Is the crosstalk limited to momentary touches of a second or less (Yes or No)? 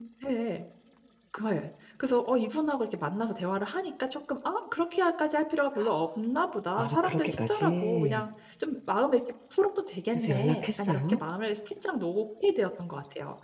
No